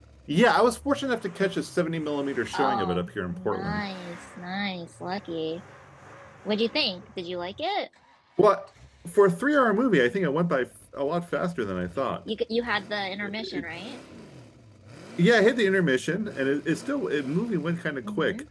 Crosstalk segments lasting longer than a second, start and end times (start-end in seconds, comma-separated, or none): 2.5-3.9